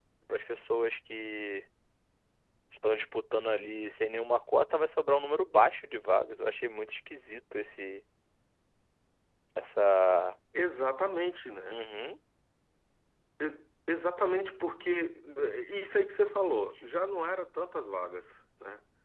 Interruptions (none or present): none